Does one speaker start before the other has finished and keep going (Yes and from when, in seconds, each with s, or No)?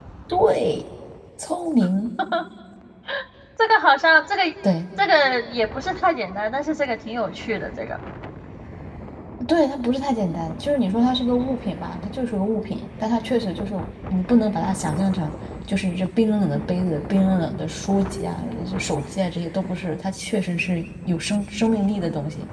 No